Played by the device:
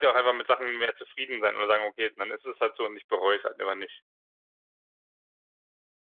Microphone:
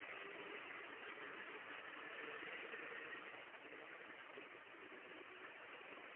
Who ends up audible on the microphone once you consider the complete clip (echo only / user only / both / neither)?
neither